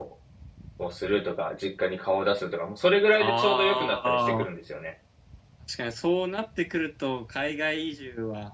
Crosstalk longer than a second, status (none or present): present